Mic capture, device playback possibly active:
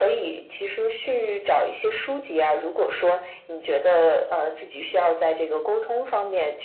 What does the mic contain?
echo only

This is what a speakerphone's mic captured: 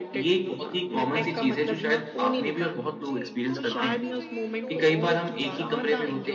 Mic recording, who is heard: both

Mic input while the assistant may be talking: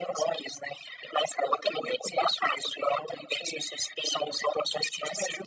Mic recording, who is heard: echo only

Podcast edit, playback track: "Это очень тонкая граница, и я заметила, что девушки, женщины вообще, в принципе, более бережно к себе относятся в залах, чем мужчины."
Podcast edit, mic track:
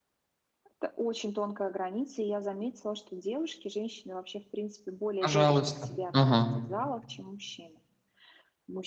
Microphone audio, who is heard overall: both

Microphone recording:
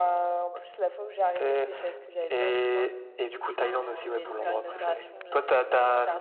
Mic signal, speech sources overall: both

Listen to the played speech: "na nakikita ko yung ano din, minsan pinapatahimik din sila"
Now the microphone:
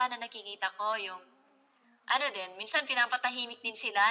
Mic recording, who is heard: echo only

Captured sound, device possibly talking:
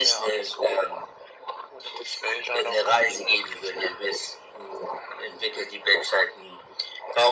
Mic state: echo only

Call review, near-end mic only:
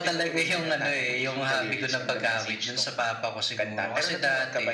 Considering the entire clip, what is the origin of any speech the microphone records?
echo only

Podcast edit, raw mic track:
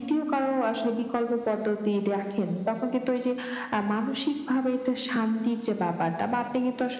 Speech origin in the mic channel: echo only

